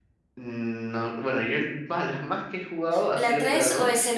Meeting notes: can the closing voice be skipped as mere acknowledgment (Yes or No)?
No